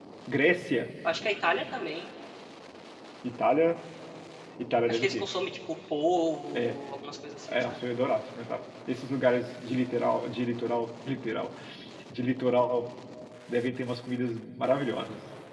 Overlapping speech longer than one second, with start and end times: none

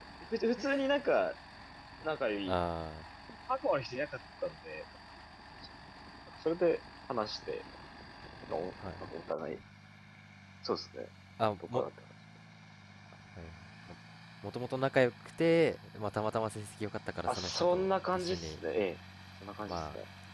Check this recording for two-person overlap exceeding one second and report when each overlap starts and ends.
17.3-18.5

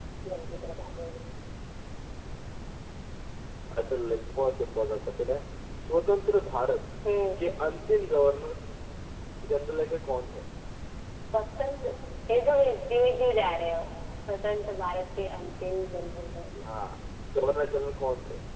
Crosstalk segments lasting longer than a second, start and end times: none

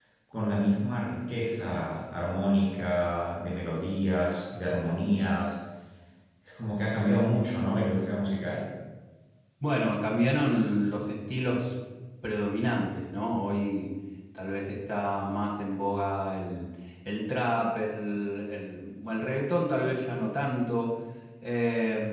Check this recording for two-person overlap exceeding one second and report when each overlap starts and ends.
none

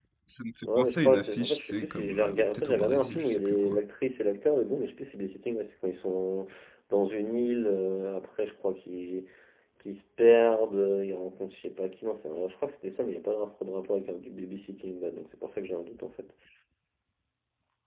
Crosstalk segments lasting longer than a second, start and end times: 0.7-3.8

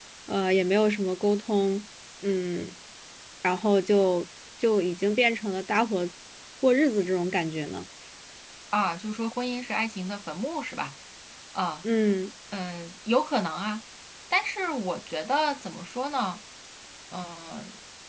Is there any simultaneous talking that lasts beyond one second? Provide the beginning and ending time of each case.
none

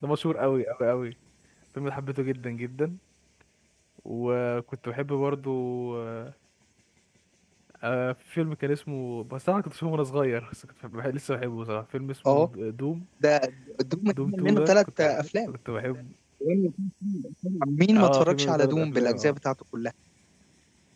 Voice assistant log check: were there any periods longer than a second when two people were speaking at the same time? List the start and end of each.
14.1-15.5, 17.9-19.4

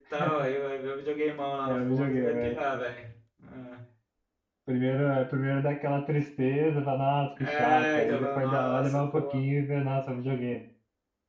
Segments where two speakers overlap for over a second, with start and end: 1.6-2.8, 7.4-9.4

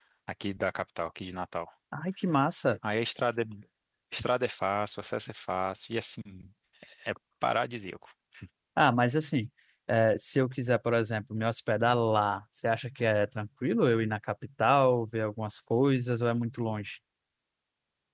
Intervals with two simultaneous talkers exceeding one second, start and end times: none

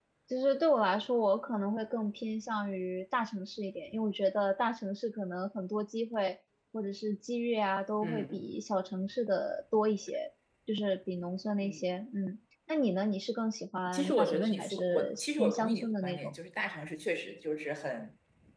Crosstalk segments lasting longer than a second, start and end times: 13.9-16.3

